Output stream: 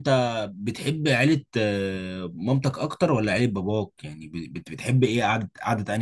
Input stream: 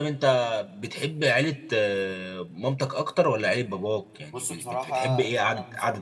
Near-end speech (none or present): present